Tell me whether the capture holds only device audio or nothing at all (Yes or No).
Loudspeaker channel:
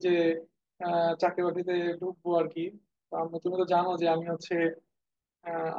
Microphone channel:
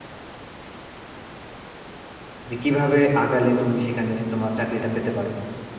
No